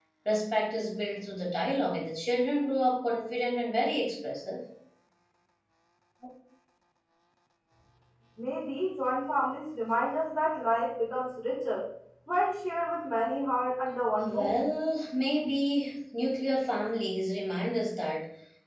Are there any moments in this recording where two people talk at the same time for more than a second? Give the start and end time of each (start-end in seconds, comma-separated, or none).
none